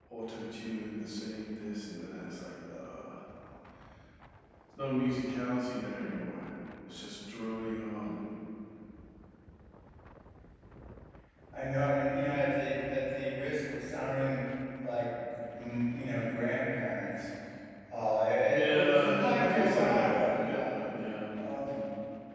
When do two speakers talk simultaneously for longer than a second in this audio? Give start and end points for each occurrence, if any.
18.5-20.9

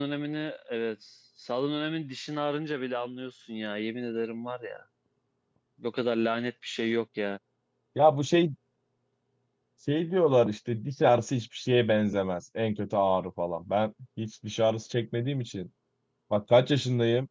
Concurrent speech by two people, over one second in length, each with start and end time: none

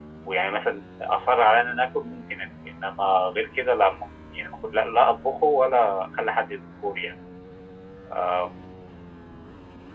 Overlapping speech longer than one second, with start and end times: none

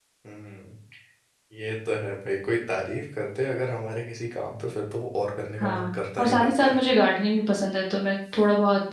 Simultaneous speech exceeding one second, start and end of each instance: 5.6-6.8

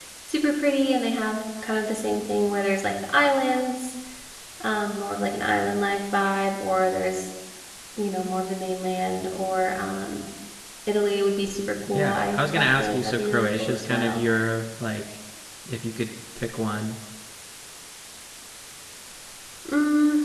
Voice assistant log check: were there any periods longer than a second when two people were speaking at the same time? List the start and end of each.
11.9-14.2

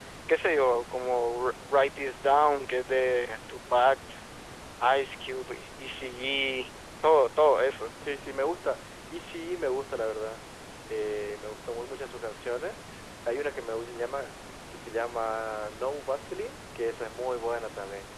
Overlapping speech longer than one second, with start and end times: none

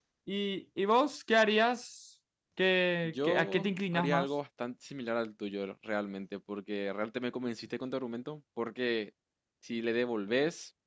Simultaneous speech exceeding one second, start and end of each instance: 3.0-4.3

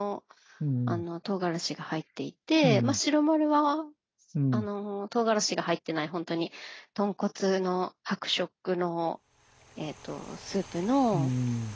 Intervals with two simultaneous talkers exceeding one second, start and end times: none

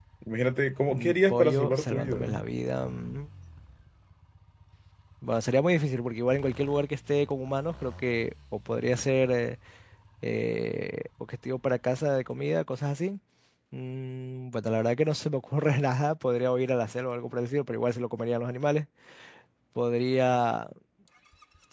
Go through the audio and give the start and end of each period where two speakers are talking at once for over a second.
0.9-2.2

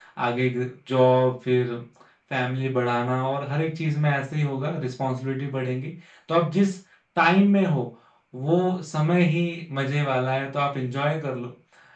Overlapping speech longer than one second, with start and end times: none

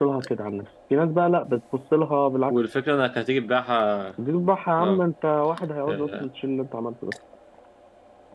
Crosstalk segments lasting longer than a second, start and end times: none

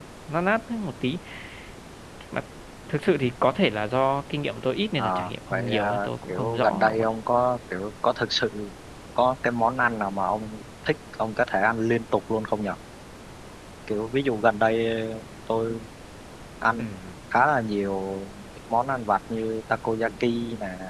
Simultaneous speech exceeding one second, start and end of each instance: 5.0-7.1

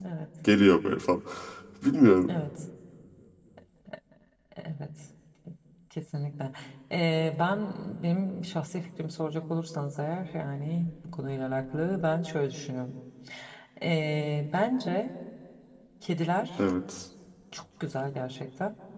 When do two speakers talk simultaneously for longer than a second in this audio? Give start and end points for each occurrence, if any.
none

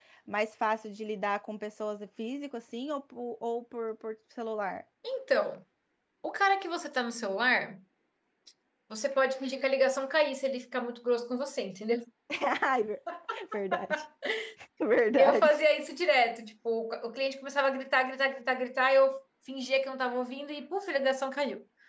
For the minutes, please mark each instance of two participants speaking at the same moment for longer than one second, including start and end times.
none

